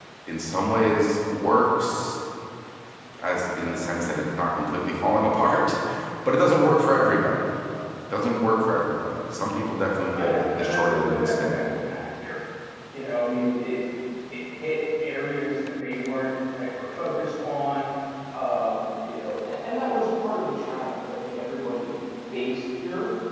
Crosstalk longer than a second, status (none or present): present